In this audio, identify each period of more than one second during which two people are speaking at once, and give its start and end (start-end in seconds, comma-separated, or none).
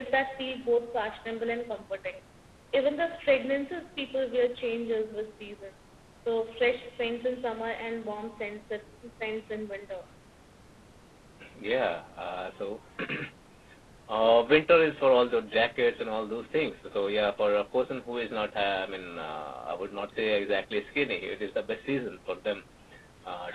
none